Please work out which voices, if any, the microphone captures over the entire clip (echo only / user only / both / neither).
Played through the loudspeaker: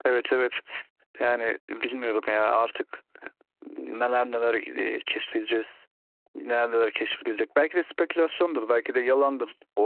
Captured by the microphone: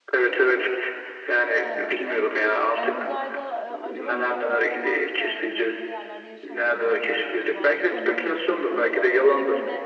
both